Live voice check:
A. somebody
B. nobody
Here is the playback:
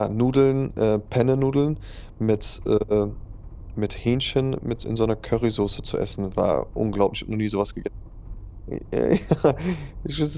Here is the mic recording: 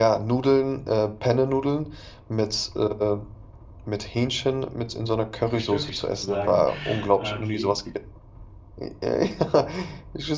A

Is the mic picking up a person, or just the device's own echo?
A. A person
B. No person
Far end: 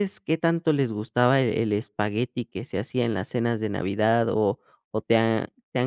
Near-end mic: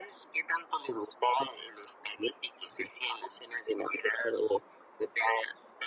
B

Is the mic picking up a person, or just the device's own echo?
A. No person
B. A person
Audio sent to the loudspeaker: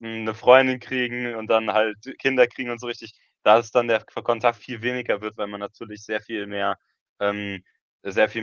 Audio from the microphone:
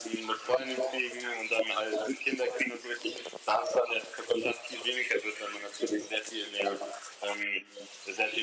A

